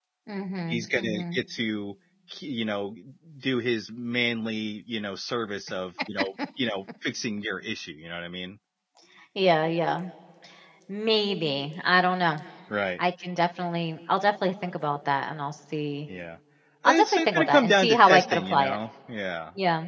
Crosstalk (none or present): present